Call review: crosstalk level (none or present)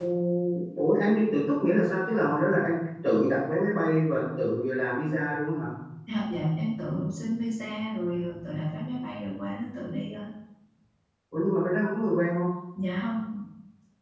none